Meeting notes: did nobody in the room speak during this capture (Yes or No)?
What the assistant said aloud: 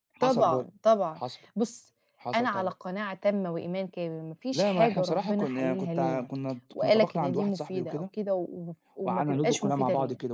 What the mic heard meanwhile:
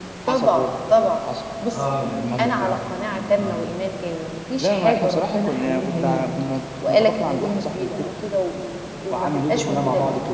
No